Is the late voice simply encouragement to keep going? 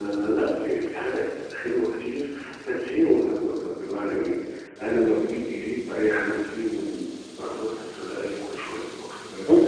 No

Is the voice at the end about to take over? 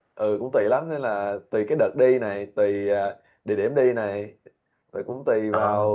No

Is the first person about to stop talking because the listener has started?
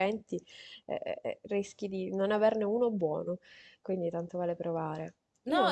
Yes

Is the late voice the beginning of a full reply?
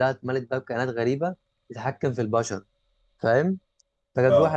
No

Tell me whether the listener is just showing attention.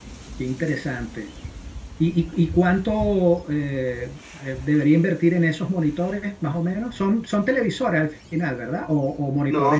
No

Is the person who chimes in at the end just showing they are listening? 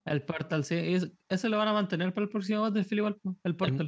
No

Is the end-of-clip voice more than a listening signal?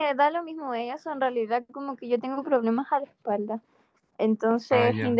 No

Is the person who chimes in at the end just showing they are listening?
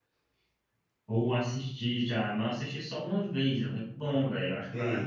No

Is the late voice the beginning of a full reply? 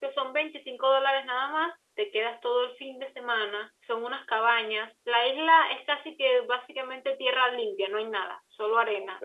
No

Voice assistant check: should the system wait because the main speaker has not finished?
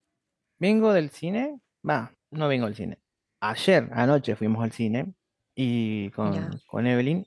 Yes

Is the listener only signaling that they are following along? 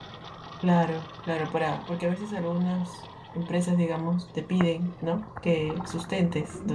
Yes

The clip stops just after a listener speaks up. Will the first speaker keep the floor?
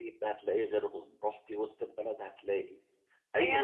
No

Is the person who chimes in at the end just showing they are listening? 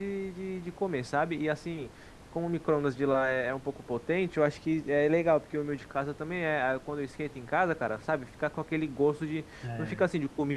Yes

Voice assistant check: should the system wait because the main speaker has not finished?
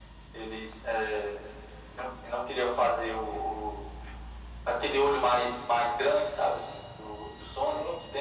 Yes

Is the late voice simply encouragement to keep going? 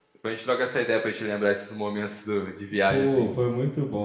No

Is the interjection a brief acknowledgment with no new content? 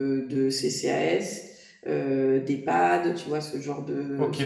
Yes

